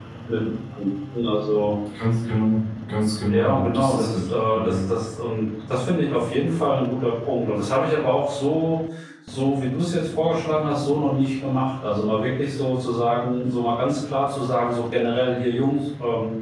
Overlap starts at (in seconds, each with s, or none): 3.3 s